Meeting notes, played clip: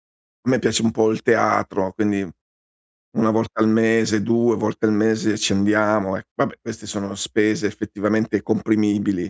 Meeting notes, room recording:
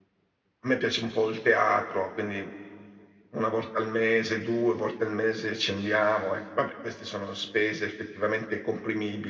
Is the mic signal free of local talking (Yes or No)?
Yes